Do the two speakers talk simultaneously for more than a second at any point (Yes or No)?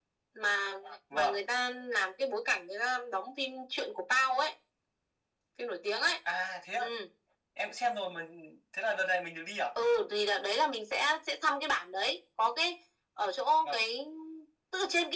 No